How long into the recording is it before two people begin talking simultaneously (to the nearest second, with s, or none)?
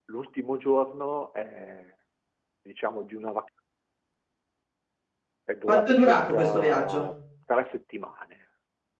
6 s